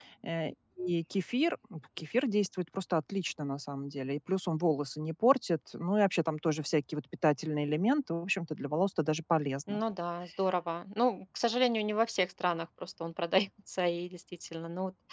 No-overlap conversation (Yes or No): Yes